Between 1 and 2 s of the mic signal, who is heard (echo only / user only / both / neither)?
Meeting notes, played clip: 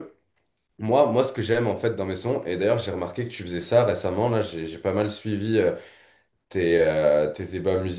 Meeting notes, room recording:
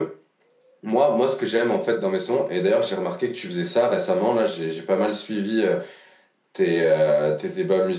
echo only